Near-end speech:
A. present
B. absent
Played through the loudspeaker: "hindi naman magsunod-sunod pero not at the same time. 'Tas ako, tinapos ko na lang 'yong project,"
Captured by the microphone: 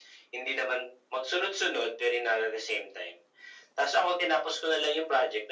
B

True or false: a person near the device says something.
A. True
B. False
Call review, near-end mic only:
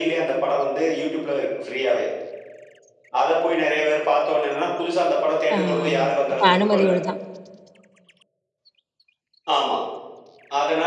A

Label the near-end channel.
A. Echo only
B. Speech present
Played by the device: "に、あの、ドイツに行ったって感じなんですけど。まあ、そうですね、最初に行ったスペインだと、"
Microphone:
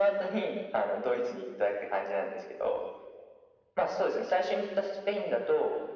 A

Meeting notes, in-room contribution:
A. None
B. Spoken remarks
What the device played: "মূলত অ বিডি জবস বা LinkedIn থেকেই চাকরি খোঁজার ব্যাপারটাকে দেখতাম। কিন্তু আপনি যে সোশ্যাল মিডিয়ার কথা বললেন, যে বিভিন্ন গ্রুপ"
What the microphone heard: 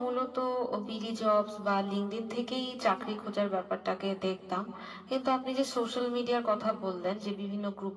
A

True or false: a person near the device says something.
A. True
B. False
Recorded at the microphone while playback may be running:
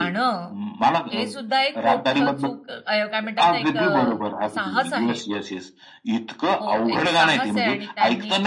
A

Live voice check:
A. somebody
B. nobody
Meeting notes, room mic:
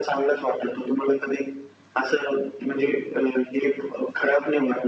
B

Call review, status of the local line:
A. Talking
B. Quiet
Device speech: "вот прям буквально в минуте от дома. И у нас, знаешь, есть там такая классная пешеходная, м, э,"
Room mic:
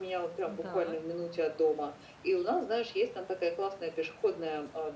A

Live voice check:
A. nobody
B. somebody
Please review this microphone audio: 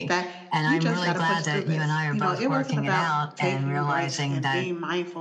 B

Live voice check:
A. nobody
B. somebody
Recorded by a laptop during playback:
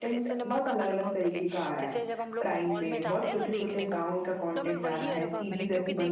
B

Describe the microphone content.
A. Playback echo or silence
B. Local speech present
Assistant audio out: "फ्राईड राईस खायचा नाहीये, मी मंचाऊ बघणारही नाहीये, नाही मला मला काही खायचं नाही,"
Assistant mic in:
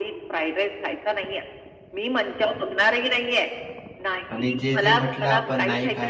B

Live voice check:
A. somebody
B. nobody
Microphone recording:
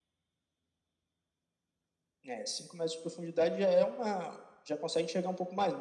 B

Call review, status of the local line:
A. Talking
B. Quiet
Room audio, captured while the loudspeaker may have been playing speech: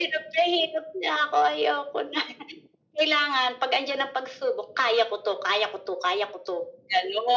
B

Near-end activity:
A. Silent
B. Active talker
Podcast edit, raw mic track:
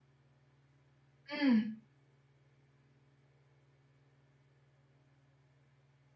B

